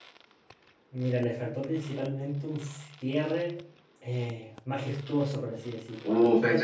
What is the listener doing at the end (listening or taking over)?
taking over